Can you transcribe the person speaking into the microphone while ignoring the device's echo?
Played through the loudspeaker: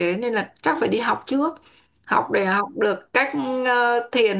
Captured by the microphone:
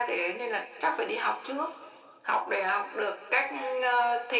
none

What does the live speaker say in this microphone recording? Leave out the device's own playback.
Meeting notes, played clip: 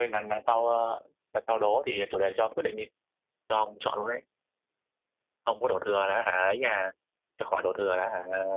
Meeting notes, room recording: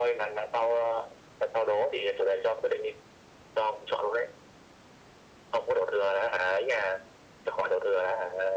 none

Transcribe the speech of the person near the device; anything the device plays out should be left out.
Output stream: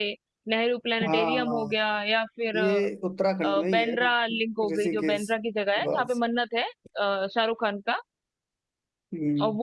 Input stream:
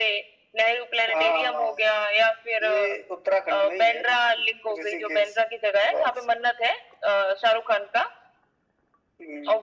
none

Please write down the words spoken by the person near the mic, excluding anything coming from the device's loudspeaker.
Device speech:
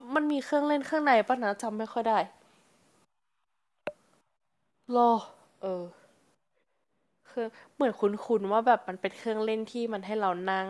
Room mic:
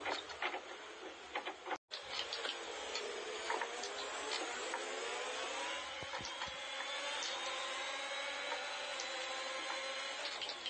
none

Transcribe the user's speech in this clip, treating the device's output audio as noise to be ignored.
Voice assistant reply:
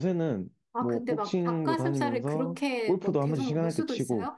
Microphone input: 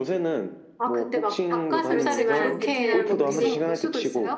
그렇지만 베트남 음식을

